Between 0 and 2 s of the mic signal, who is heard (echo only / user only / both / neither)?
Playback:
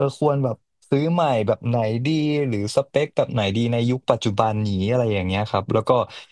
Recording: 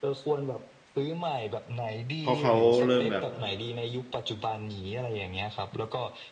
echo only